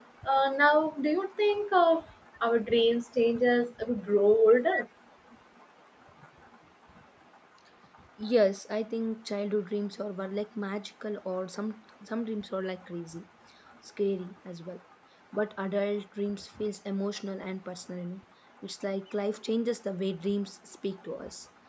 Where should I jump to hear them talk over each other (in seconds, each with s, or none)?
none